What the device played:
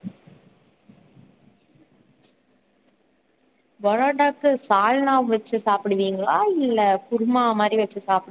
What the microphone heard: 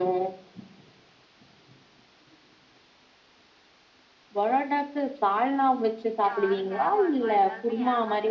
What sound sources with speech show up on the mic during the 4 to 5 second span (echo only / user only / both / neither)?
echo only